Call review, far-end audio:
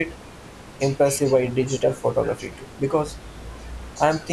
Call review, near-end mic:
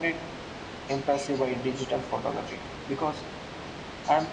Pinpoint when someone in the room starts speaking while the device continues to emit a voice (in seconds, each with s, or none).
none